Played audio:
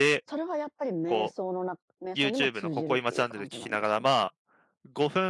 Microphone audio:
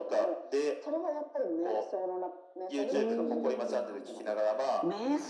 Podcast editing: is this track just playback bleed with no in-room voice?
No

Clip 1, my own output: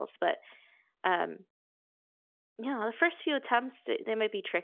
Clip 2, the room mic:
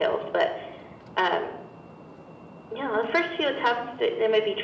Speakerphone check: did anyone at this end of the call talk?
No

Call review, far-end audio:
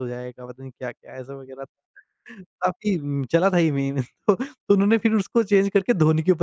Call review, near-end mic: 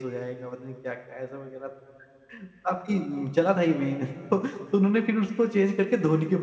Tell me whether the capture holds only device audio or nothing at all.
Yes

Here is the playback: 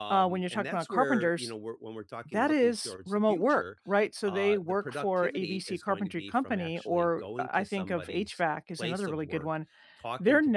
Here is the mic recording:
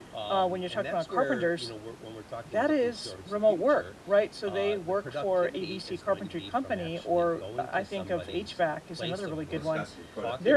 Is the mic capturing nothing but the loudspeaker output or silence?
No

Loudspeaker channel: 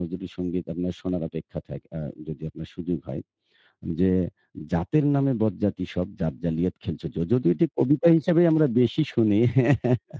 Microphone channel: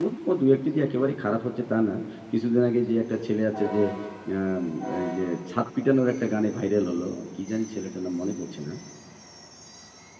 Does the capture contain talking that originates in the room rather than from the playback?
Yes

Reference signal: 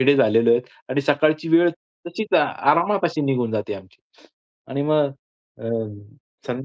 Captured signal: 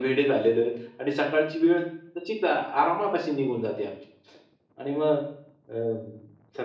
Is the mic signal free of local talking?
Yes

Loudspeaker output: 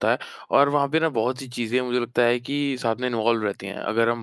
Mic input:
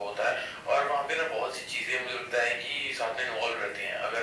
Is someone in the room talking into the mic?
No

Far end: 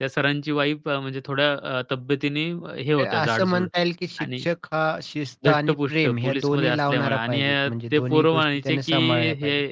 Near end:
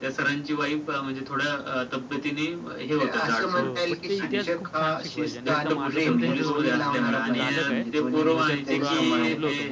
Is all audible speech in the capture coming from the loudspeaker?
No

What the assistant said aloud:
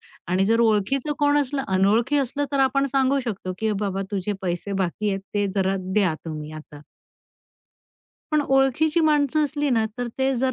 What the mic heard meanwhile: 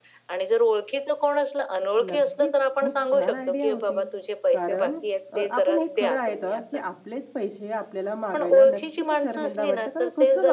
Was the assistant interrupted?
Yes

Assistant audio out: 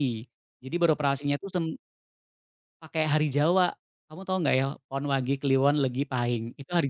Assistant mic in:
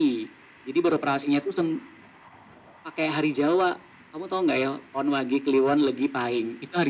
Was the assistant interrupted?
No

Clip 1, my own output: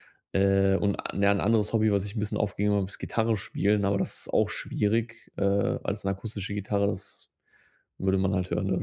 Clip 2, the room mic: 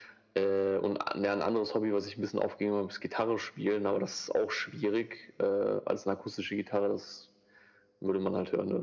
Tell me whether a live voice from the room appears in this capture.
No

